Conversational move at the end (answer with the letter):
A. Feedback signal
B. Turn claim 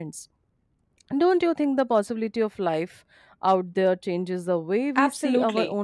B